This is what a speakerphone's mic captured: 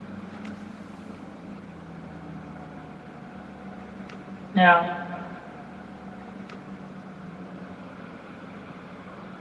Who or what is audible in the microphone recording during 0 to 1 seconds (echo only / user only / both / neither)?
neither